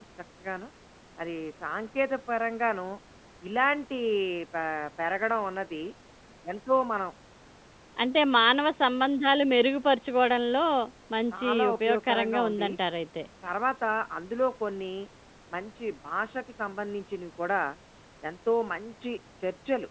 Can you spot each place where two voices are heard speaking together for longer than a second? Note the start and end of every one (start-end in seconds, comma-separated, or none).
11.4-12.7